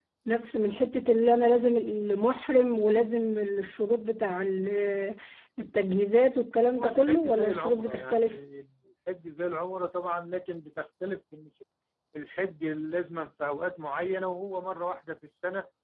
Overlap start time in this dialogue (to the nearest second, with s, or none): 7 s